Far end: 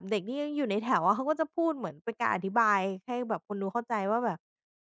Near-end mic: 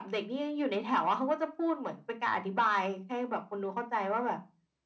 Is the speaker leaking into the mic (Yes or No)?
Yes